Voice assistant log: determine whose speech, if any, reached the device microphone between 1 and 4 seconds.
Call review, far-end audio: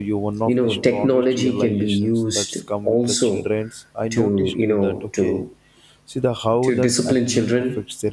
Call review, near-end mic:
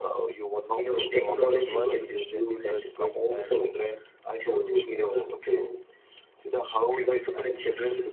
both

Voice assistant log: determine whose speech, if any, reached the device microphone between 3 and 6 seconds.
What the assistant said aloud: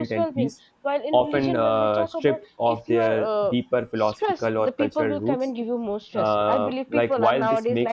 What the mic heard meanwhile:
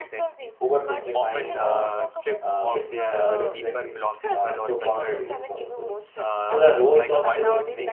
both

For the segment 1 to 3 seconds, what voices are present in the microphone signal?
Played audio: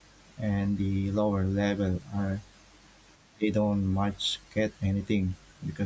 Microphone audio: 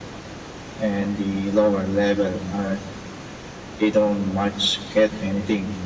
echo only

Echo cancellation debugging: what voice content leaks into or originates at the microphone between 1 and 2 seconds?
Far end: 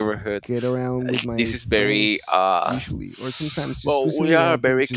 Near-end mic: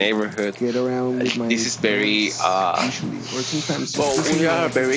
echo only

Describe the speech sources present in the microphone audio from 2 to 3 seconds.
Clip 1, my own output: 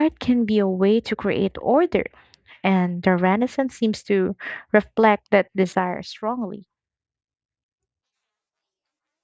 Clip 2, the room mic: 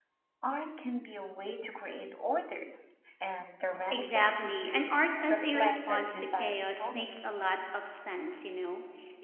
echo only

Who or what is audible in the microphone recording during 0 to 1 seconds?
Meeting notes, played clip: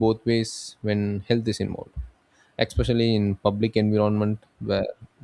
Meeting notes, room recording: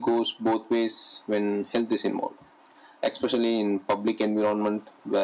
echo only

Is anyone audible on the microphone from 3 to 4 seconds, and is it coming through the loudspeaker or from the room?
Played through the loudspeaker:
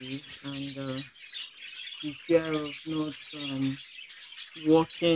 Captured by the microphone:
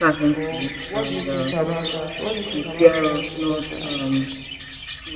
both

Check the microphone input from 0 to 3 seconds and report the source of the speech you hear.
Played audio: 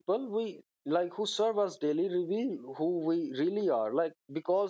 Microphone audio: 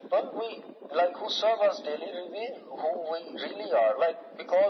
echo only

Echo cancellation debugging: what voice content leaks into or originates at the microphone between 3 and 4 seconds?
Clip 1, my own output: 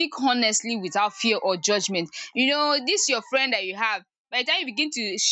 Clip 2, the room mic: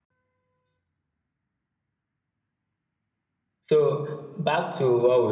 user only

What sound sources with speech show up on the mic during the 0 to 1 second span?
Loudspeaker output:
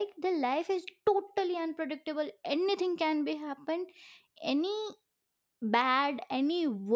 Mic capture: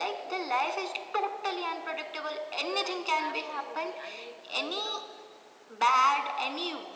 echo only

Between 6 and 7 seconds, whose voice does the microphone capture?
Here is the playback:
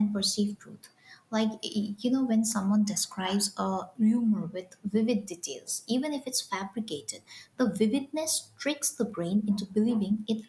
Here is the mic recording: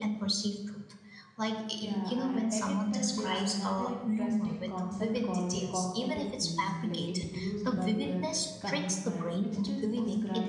both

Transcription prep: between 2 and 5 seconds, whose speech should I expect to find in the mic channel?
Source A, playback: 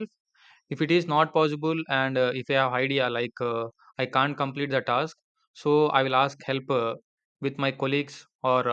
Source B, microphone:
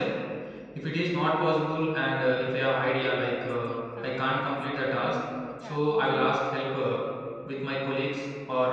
both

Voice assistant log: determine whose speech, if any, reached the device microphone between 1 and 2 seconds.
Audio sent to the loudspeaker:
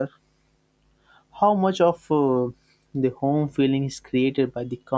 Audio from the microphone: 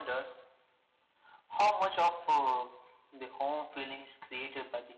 echo only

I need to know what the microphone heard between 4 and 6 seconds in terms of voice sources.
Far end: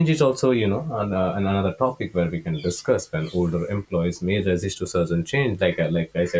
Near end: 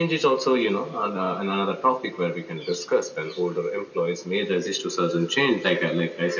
echo only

